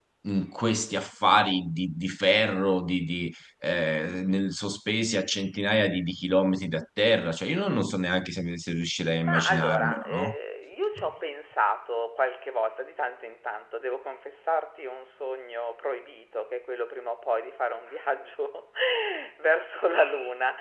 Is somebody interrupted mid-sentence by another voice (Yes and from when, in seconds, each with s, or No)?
Yes, from 9.1 s